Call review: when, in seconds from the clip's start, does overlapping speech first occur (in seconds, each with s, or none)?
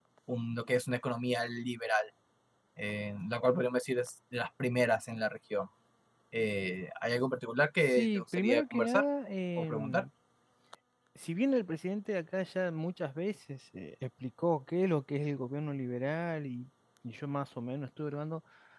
7.8 s